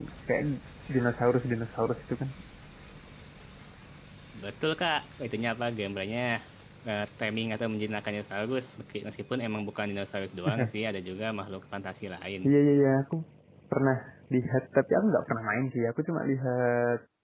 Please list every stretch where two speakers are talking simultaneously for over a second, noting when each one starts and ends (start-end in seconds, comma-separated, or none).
none